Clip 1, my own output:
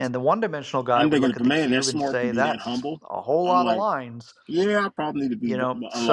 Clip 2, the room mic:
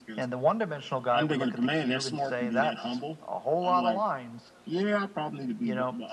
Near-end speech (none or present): none